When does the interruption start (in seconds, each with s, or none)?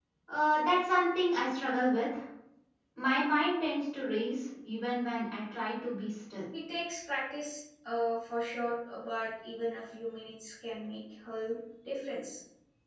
none